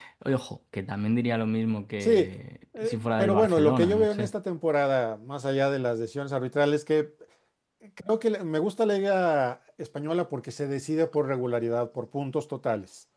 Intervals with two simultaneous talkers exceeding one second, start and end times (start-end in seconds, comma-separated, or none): 2.8-4.3